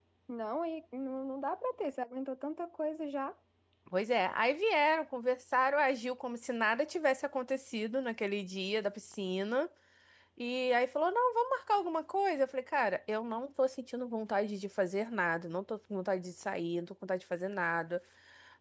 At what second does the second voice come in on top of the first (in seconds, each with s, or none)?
none